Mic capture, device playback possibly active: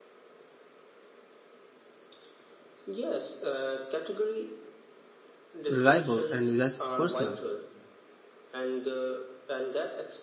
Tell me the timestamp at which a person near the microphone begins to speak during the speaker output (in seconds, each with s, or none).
5.7 s